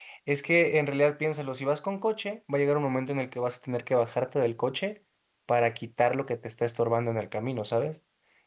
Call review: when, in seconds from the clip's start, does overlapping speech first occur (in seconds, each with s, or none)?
none